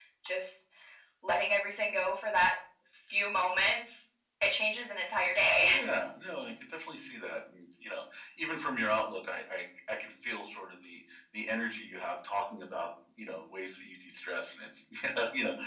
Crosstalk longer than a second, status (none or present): none